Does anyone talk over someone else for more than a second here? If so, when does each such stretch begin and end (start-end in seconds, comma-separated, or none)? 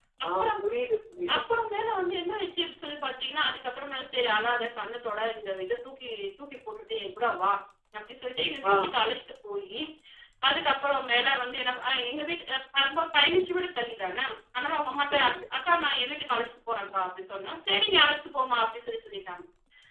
none